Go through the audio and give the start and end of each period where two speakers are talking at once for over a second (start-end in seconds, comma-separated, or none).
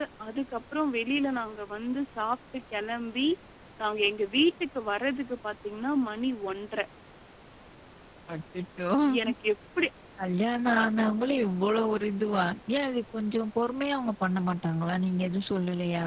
none